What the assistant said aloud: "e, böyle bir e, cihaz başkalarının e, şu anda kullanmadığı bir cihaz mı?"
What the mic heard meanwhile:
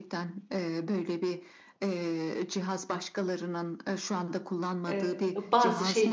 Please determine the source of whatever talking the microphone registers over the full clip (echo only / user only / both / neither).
both